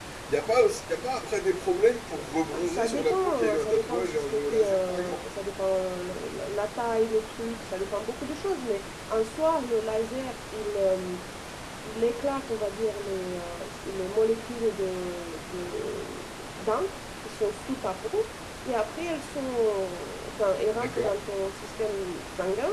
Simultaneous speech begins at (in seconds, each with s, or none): 2.5 s